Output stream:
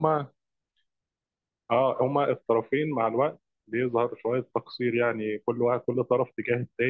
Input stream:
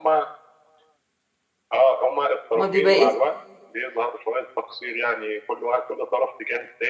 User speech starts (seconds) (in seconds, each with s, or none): 2.5 s